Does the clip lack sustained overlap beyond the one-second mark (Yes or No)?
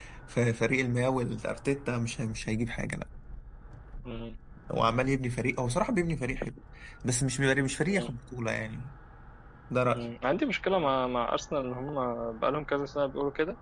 Yes